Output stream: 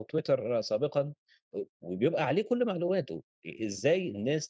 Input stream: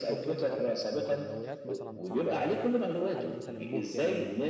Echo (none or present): present